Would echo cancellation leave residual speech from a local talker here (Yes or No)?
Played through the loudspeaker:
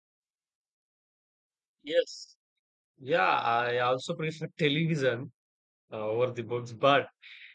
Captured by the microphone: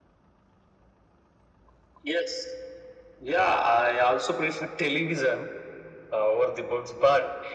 No